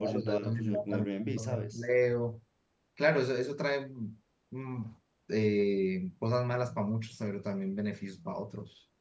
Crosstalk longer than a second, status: present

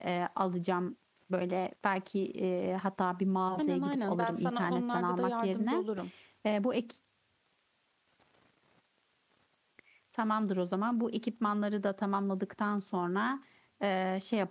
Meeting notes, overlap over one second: present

